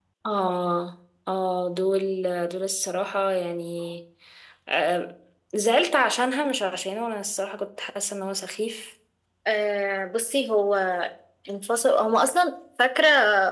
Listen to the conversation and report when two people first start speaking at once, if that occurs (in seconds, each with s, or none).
none